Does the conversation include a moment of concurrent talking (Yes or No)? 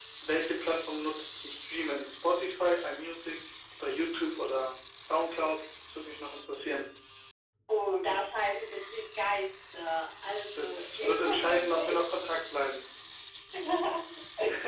Yes